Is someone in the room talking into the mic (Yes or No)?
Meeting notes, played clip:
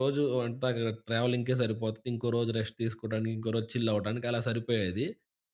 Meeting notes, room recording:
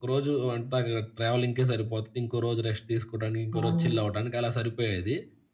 Yes